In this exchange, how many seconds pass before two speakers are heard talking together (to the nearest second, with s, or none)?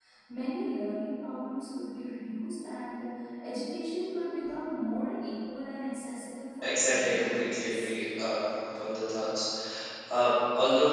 7 s